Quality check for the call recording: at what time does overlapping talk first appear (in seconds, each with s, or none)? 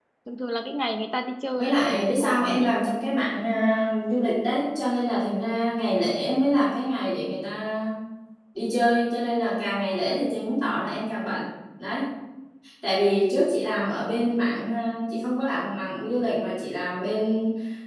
1.5 s